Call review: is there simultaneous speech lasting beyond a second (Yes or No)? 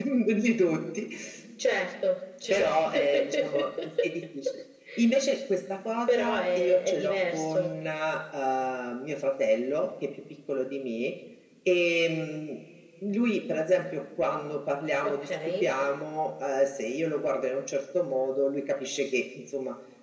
Yes